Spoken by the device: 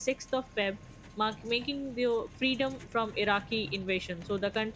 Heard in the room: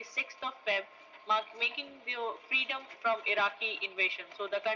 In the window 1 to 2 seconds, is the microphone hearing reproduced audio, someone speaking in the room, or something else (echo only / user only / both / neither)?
echo only